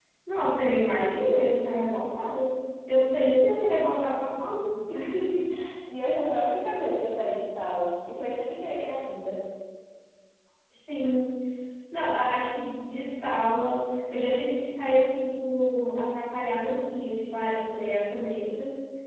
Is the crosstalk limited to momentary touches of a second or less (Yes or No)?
Yes